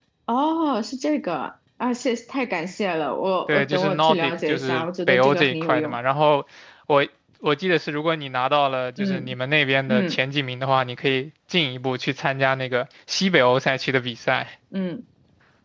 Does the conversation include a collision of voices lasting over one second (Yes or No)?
Yes